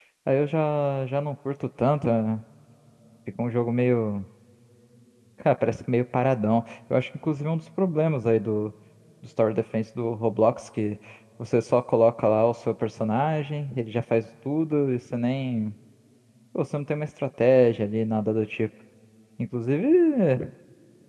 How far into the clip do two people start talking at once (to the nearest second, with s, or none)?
none